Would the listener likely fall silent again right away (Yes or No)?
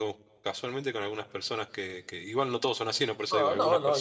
No